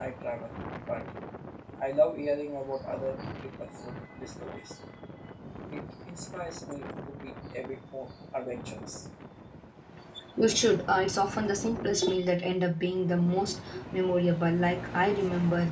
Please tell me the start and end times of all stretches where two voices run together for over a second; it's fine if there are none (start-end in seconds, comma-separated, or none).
none